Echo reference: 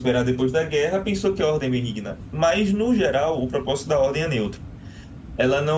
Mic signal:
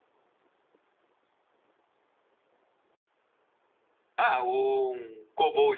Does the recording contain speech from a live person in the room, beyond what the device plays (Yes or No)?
Yes